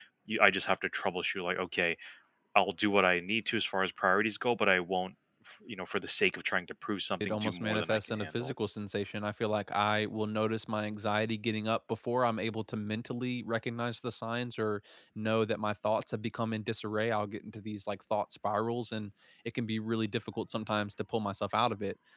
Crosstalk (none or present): present